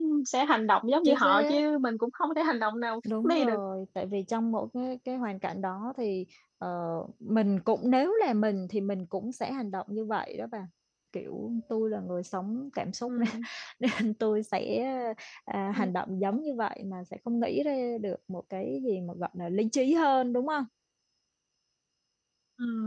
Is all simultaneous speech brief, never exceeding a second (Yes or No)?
Yes